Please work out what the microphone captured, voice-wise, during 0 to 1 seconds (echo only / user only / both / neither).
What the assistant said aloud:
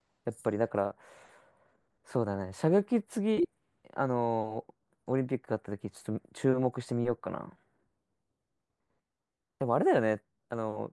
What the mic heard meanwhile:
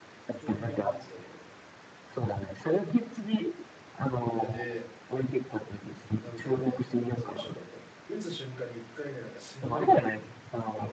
both